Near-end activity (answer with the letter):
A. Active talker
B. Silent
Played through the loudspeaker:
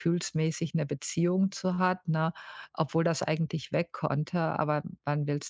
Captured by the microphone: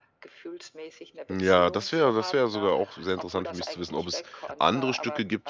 A